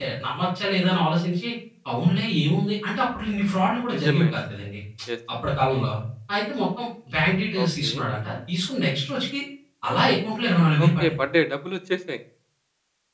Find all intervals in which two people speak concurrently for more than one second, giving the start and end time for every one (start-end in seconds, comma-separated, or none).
none